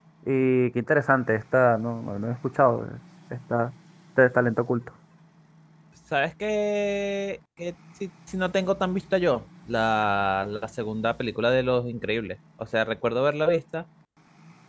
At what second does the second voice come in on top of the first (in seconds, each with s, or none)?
none